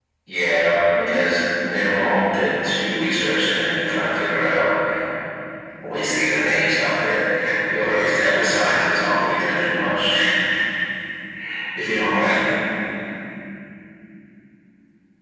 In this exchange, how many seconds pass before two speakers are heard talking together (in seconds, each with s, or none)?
0.9 s